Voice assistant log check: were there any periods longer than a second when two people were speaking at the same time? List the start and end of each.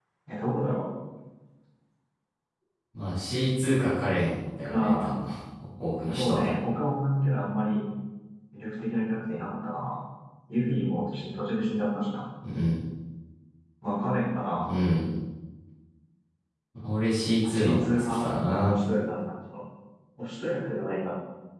17.4-18.7

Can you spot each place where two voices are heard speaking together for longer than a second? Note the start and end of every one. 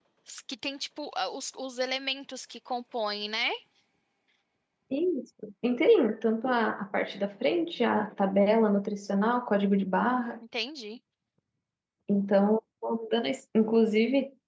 none

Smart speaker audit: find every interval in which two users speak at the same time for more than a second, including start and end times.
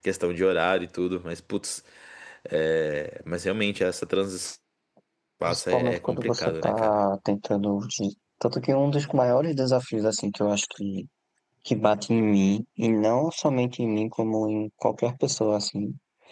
5.5-7.0

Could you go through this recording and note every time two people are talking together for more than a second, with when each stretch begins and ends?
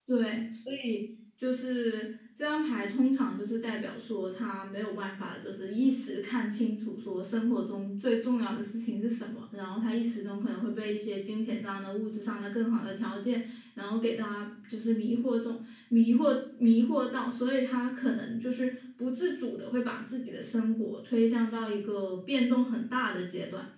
none

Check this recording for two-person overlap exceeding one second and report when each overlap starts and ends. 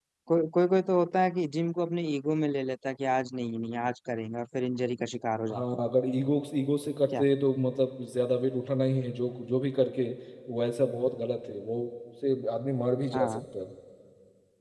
none

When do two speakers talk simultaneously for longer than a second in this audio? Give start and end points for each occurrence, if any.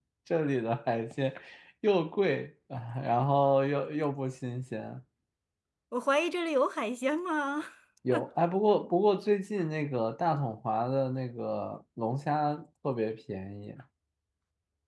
none

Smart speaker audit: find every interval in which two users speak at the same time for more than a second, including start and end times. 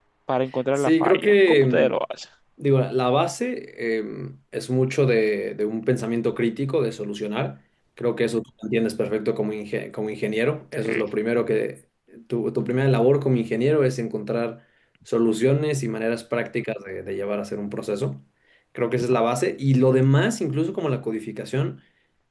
0.8-2.0

